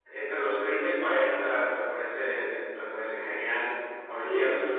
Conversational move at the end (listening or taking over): listening